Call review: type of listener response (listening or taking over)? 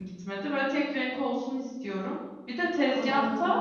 listening